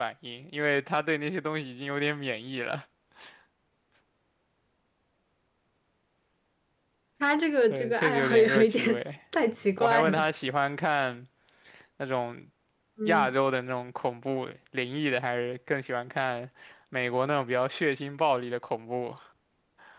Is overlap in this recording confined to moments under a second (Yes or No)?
No